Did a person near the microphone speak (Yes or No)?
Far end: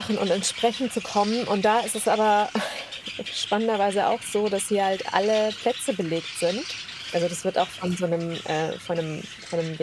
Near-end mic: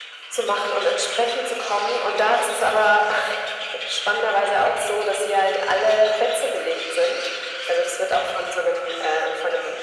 No